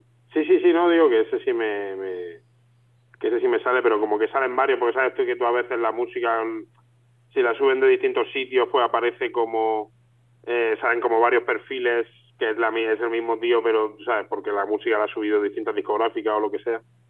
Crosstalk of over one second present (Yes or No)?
No